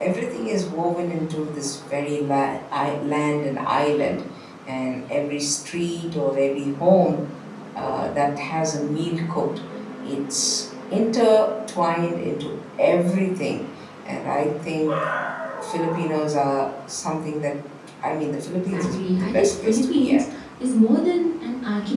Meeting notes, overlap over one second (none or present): present